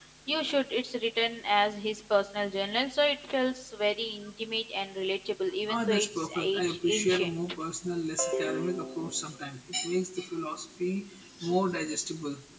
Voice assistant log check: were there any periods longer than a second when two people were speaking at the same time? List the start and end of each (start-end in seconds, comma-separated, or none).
5.7-7.3